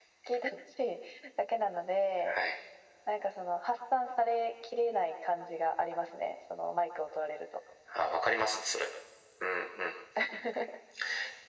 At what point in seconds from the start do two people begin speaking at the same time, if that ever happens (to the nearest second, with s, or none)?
none